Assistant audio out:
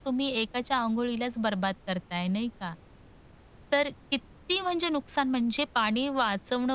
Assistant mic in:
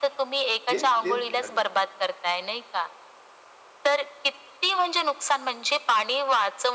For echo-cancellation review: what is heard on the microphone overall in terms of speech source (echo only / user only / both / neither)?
both